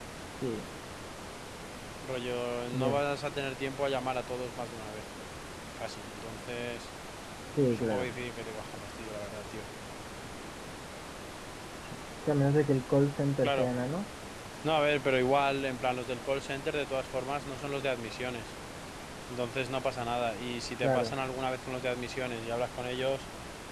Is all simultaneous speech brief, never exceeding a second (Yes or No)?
Yes